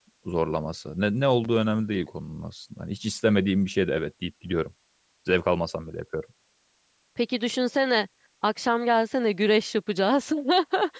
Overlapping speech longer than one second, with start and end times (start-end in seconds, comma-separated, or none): none